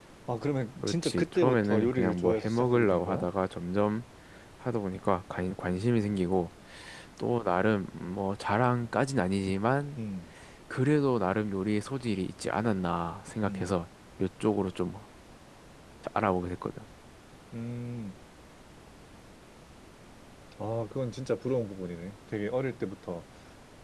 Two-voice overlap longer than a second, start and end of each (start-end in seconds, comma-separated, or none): 0.8-3.3